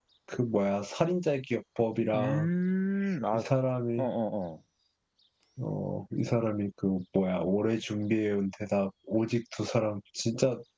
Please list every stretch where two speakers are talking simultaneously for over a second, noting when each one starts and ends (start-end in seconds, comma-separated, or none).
none